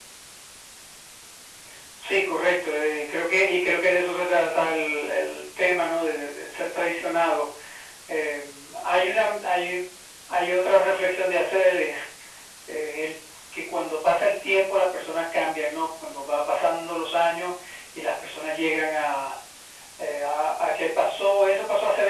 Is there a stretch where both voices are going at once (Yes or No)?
No